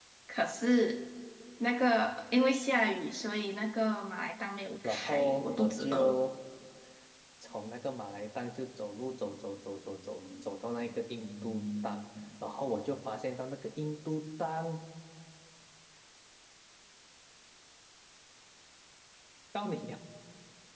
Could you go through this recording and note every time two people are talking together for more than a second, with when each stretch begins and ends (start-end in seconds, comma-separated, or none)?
4.8-6.2